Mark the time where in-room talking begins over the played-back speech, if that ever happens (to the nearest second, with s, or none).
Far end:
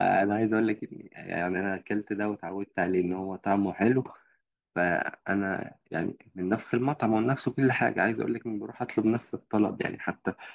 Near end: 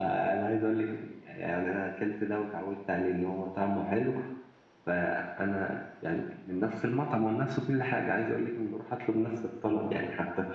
none